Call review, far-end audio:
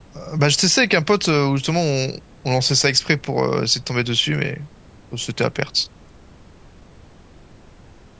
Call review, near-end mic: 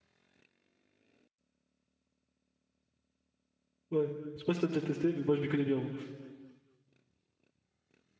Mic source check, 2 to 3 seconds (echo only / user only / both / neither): neither